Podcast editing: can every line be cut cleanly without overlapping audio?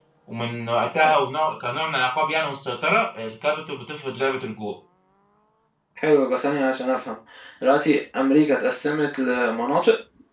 Yes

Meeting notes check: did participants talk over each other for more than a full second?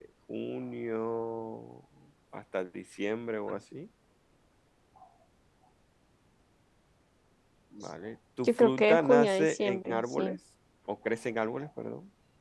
Yes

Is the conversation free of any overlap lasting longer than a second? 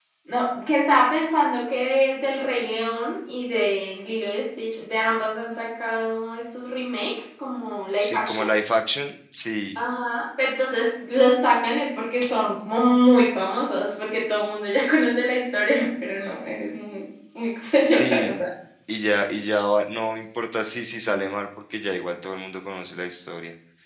Yes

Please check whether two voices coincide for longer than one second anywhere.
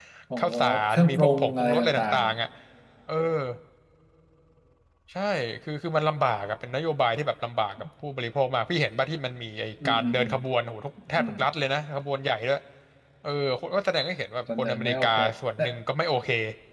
Yes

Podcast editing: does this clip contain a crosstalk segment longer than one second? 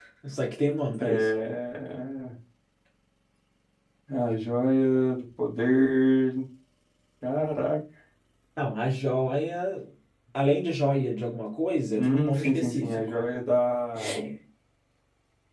Yes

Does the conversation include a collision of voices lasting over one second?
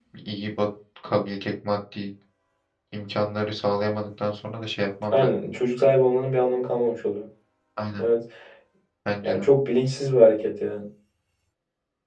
No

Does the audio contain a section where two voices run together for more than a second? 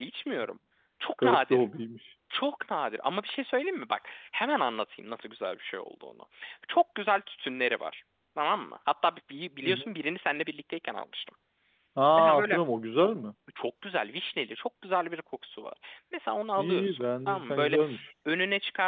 Yes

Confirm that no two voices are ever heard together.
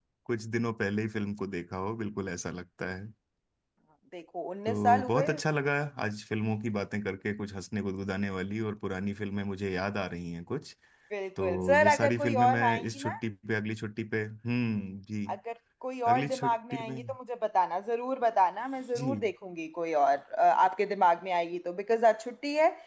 No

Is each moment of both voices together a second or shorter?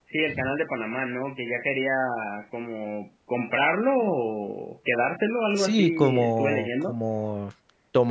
No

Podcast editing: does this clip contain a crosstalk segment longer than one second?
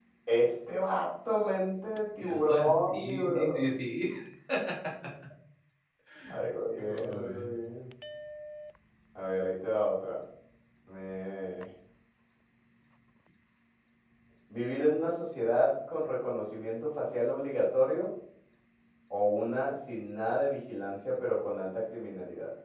Yes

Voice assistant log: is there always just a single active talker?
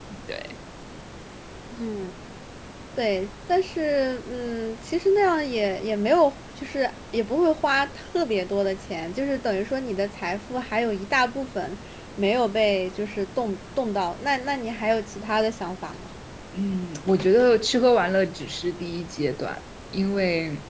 Yes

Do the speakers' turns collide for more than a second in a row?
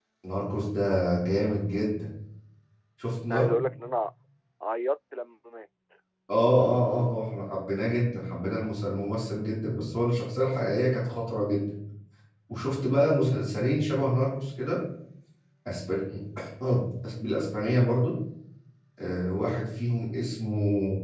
No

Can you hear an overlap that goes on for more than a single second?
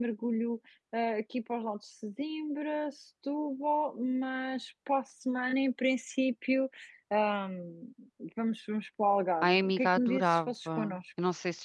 Yes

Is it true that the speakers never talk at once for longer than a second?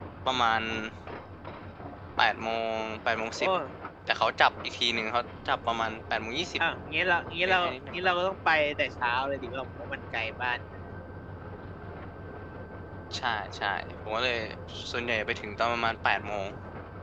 Yes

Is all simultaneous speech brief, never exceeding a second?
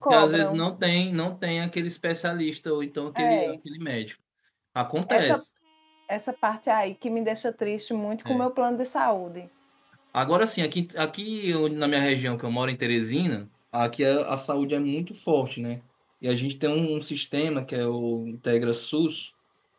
Yes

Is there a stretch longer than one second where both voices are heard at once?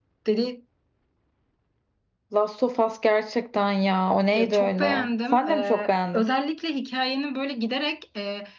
Yes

